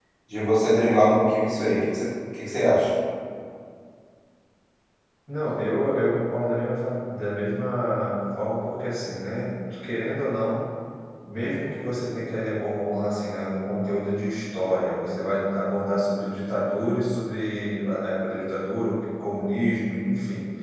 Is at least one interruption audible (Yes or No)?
No